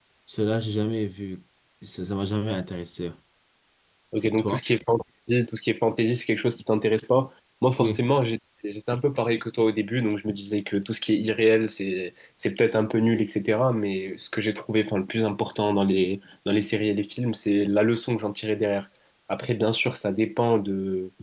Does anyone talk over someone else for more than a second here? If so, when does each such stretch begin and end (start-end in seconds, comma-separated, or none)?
none